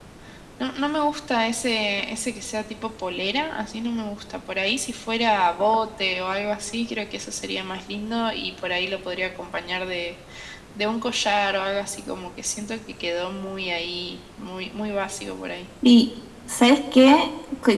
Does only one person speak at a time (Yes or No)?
Yes